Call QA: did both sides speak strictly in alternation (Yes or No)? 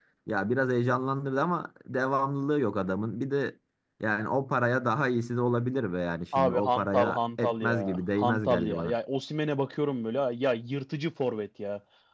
No